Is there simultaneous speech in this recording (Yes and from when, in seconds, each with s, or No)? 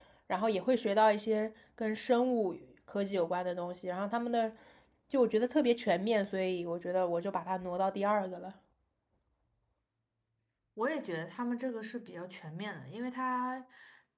No